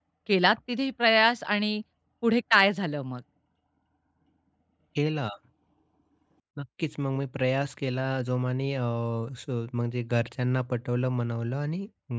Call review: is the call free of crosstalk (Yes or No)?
Yes